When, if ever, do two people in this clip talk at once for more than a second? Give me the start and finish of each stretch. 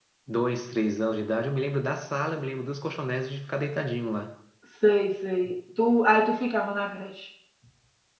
none

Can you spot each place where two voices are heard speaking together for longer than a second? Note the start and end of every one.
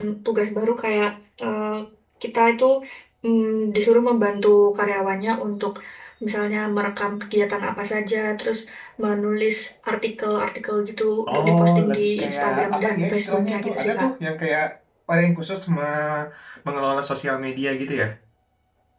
11.3-14.1

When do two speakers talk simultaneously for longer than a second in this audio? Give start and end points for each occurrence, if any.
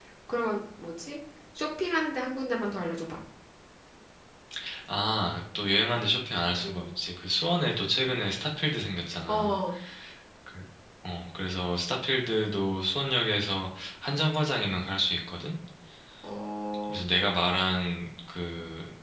none

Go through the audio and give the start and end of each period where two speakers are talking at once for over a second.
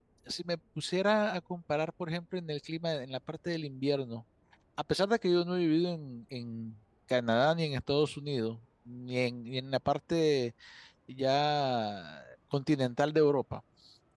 none

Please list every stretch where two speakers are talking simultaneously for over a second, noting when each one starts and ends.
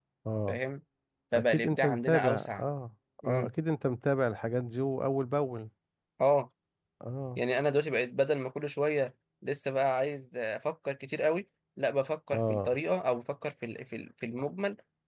1.3-2.6

